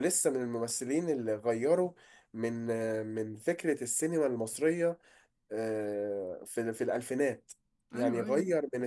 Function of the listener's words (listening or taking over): listening